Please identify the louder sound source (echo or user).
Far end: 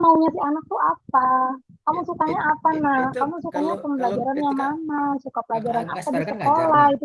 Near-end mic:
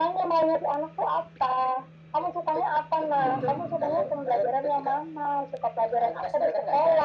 echo